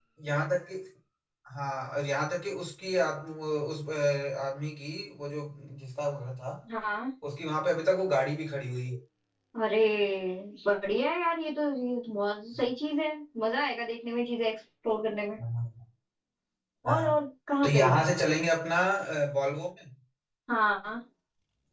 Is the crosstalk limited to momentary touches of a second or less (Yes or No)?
Yes